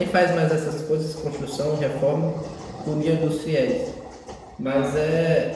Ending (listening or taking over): listening